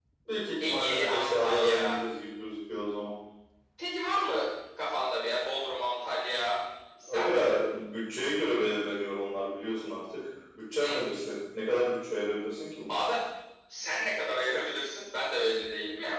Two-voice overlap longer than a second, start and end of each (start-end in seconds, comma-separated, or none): 0.7-1.9